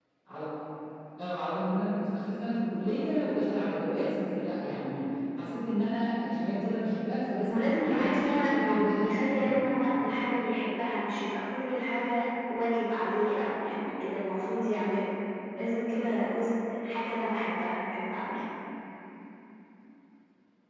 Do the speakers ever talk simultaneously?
Yes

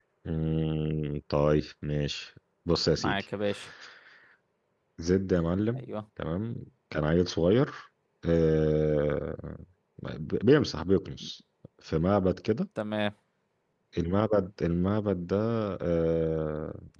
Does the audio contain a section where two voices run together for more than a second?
No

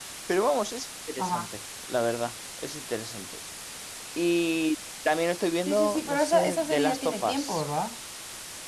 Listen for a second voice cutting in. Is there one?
Yes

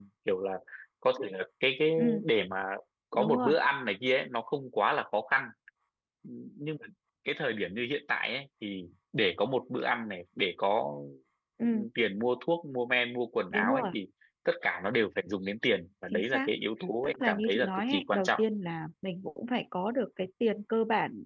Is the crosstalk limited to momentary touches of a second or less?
No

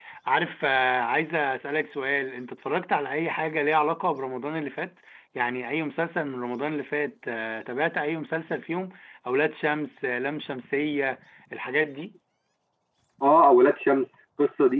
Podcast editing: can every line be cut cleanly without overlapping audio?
Yes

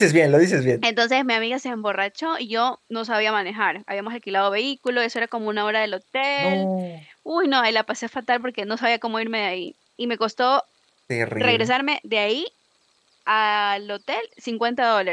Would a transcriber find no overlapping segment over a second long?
Yes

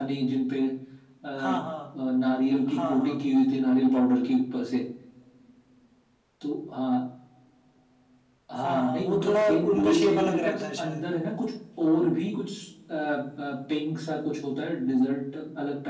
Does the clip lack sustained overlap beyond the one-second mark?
No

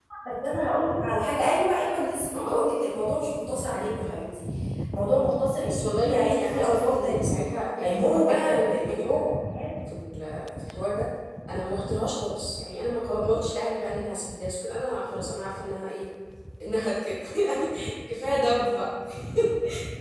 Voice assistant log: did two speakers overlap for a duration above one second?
Yes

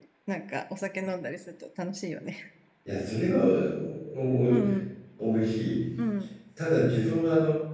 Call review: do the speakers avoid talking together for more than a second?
Yes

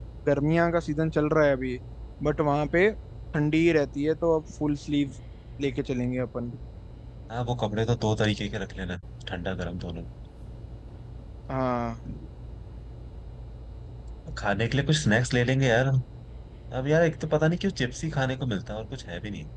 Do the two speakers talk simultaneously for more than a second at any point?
No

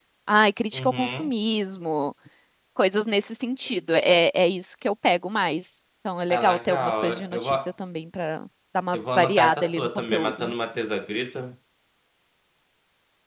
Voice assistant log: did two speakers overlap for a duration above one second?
Yes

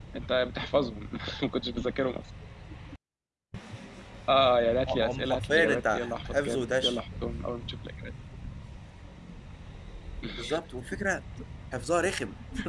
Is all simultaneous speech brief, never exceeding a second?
No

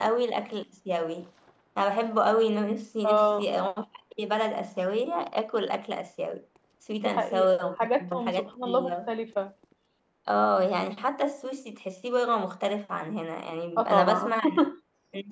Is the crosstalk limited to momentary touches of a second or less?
No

